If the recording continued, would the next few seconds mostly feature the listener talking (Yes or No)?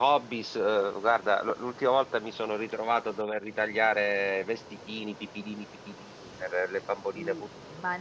Yes